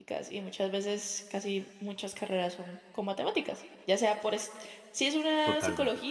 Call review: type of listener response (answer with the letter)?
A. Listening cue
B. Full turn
A